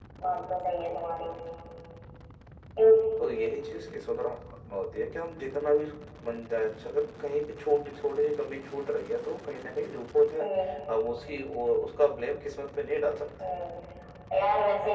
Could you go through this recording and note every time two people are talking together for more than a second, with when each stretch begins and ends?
none

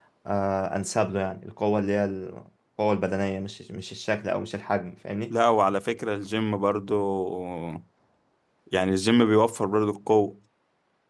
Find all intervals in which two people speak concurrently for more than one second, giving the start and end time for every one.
none

